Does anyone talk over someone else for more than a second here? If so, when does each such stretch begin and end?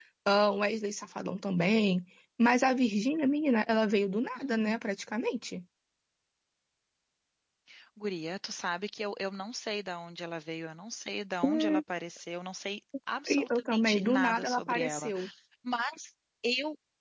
13.3-15.1

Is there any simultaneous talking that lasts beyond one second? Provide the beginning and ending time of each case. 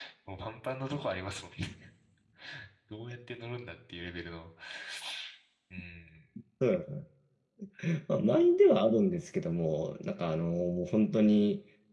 none

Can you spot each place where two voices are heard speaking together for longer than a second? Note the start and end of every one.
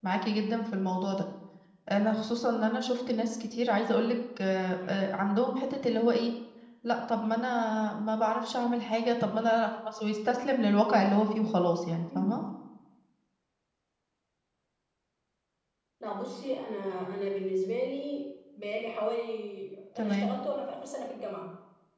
none

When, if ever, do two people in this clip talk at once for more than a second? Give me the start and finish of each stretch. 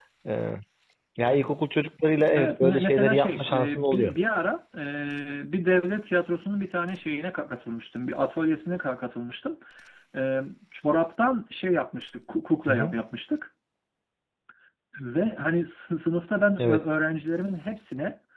2.4-4.1

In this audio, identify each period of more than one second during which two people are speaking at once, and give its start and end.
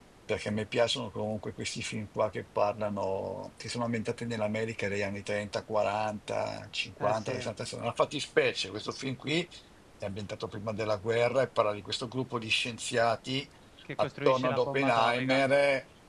14.0-15.4

